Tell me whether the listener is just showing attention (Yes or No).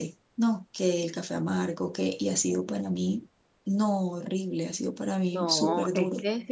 No